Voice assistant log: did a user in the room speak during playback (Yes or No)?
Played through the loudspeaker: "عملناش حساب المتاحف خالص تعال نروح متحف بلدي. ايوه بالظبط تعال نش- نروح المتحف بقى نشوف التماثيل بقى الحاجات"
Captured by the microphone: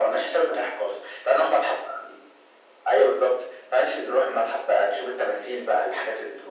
No